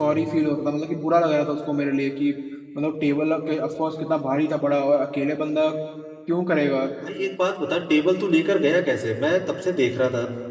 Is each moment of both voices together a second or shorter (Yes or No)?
Yes